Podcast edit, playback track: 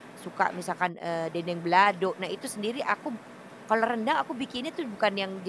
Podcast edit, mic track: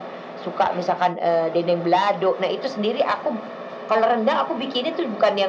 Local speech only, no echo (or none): none